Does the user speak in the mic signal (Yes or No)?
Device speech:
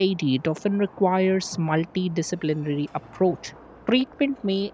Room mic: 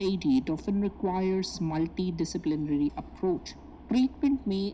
No